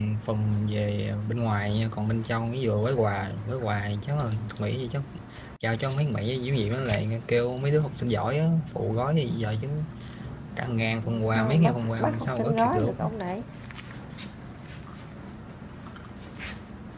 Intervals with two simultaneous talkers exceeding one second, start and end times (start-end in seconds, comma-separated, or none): 11.0-12.9